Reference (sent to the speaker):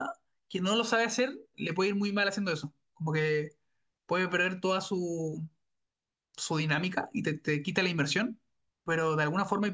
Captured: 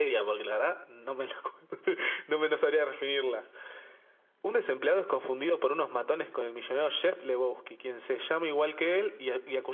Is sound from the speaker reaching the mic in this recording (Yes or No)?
No